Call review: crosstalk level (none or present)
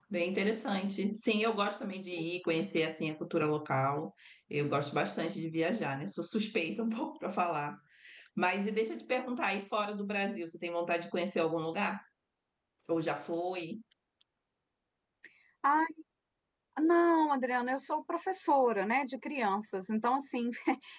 none